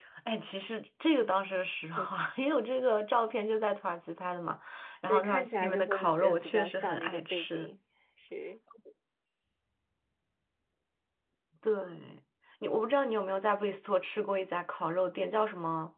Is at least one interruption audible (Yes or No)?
Yes